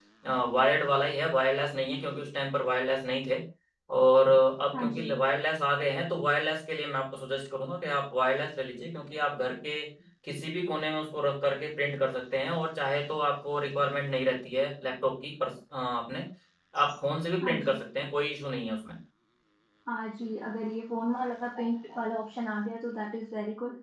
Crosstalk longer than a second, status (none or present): none